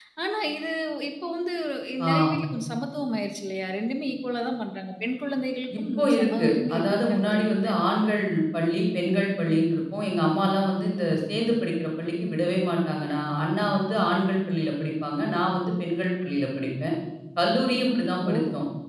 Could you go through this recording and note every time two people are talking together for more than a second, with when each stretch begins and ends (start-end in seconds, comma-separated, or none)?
5.8-7.7